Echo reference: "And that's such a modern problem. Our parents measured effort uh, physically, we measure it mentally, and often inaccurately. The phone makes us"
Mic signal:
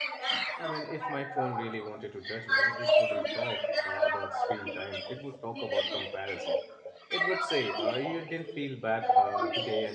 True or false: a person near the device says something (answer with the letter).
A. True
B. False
A